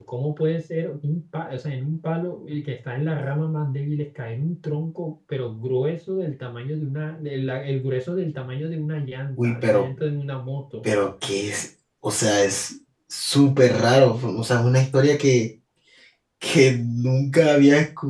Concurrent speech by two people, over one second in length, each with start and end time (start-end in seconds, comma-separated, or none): none